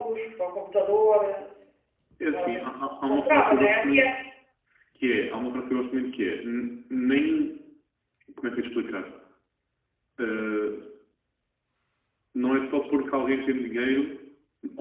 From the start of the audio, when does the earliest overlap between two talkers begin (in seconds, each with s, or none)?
2.3 s